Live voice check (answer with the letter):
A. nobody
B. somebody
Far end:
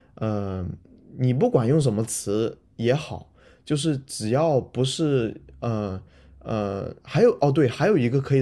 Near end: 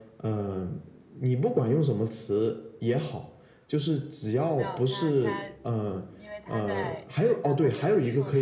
B